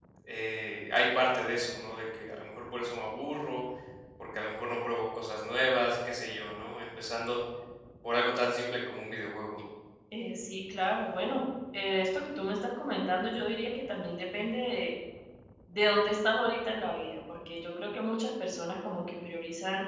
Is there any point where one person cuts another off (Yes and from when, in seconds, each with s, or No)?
No